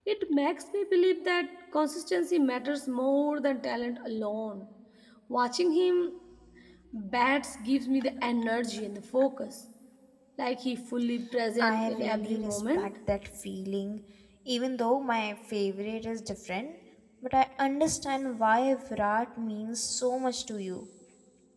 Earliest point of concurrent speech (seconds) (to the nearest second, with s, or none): 12 s